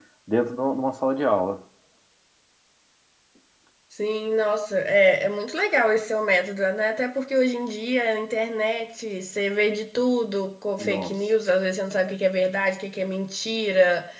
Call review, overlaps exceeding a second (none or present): none